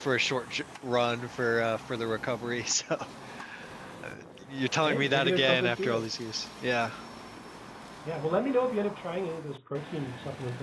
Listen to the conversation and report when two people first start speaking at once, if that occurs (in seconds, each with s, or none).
4.8 s